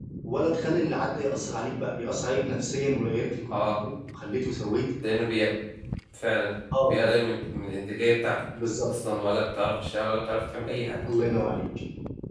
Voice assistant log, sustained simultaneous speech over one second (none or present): none